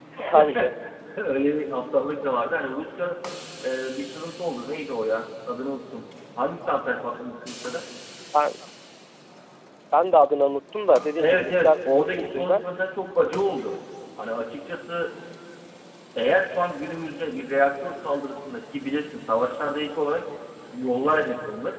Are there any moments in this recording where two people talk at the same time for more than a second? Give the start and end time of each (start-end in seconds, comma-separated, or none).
11.2-12.6